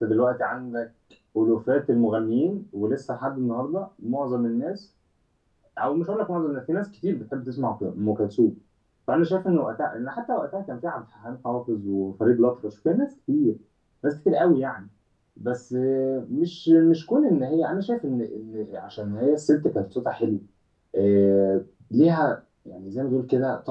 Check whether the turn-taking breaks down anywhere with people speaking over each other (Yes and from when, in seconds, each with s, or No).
No